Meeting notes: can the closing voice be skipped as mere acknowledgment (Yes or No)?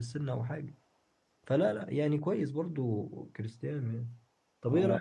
No